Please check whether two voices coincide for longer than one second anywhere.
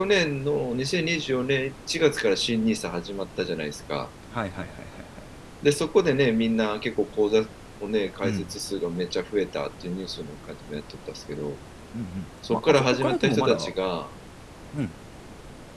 Yes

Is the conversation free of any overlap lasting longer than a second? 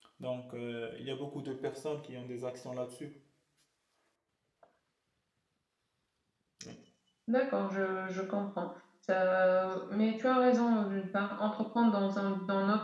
Yes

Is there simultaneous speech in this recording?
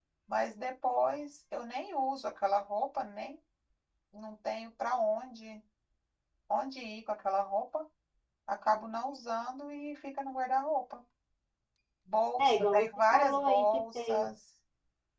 Yes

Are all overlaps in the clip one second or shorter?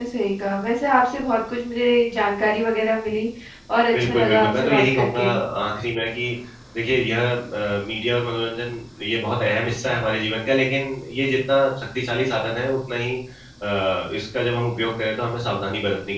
No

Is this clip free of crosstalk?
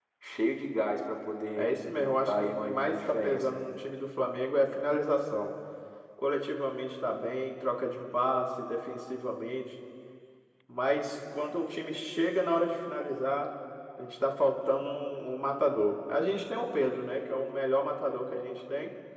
No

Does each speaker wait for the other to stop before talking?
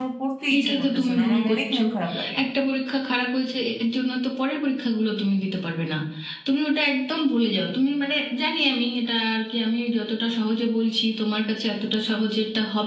No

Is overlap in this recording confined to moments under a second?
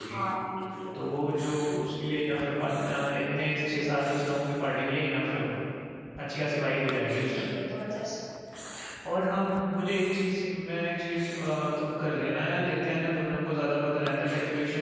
Yes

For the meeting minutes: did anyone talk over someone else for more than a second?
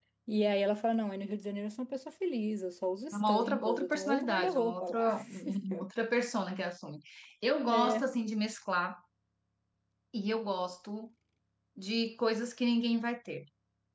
Yes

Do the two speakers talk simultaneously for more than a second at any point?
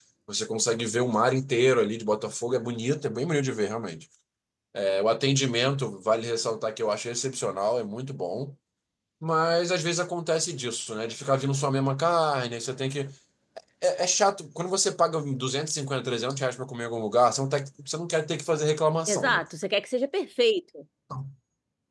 No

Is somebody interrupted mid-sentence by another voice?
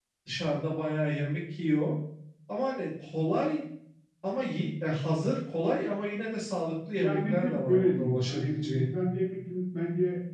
Yes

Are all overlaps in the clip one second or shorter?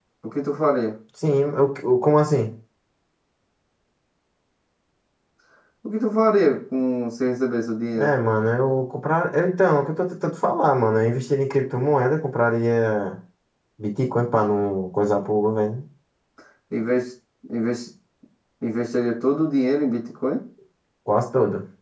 Yes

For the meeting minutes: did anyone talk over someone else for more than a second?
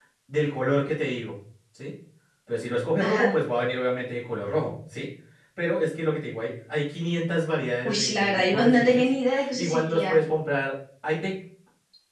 Yes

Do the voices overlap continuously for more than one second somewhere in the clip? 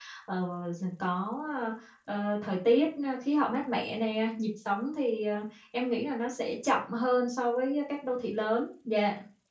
No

